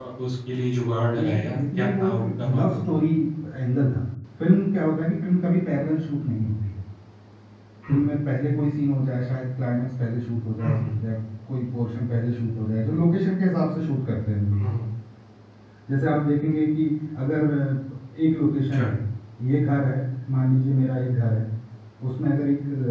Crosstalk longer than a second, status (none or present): present